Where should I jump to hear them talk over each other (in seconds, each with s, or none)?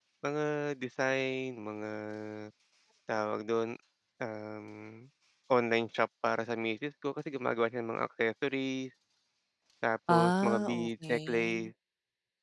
10.1 s